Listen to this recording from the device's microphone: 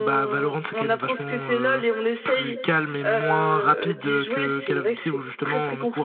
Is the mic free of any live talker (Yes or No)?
No